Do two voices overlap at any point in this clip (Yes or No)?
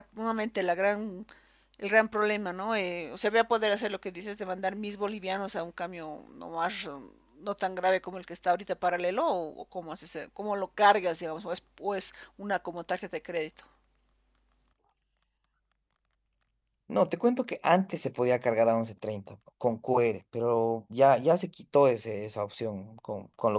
No